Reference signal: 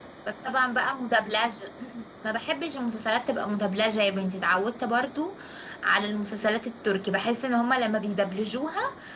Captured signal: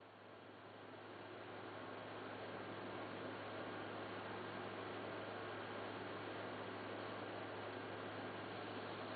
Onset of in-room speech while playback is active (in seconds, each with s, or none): none